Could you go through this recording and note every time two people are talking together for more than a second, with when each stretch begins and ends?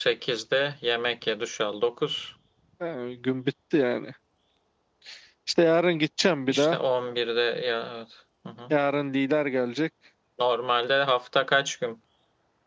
none

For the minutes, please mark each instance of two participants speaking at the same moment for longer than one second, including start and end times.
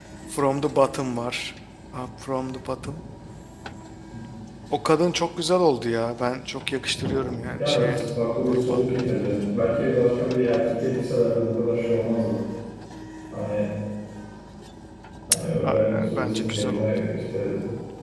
15.6-16.9

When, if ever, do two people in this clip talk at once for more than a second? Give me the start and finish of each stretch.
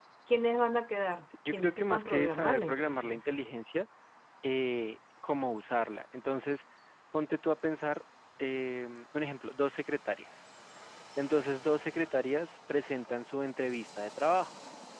1.5-3.4

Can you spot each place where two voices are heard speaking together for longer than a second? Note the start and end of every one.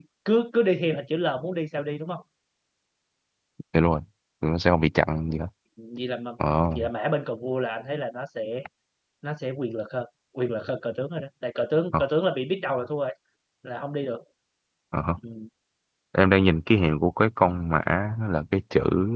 none

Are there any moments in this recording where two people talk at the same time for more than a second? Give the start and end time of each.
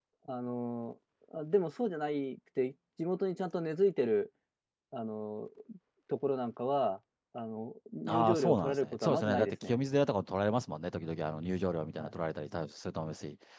8.1-9.8

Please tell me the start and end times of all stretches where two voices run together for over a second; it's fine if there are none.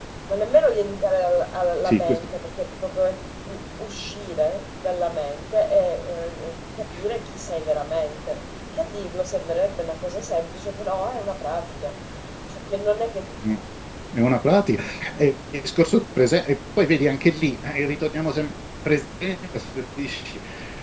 none

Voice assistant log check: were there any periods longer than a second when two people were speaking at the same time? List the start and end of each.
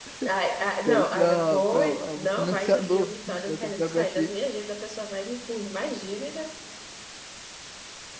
0.9-4.3

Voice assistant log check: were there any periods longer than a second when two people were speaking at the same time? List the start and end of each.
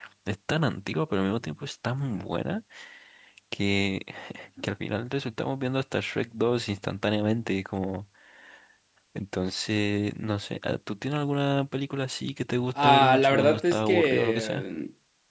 12.8-14.6

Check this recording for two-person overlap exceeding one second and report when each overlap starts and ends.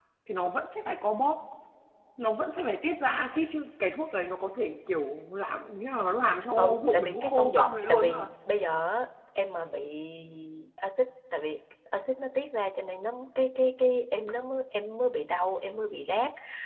6.6-8.3

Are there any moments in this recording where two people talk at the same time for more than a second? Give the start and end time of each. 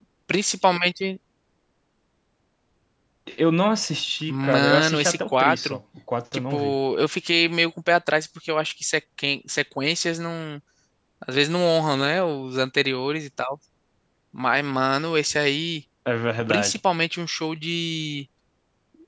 4.3-5.8

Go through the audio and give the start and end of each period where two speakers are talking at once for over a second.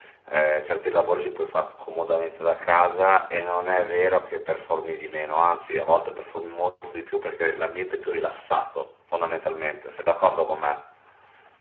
none

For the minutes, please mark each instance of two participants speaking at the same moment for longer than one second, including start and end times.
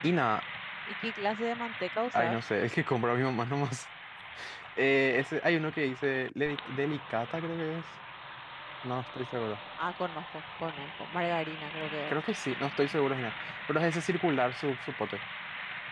none

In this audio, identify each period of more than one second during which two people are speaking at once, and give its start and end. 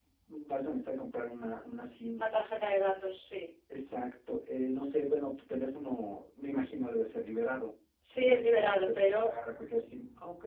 8.1-9.3

